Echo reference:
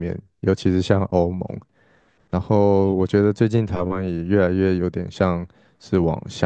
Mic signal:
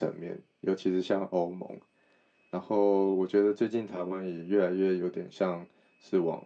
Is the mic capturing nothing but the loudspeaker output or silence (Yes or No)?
Yes